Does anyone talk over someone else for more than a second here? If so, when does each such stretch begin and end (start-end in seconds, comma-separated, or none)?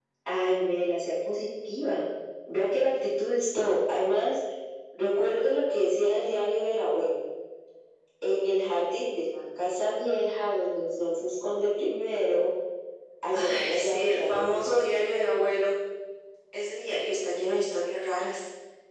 13.3-14.9